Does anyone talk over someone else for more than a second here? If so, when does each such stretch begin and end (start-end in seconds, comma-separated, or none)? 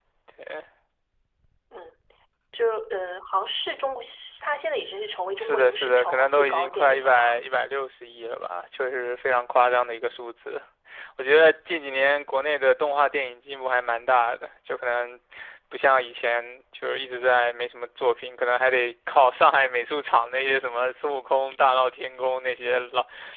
5.4-7.4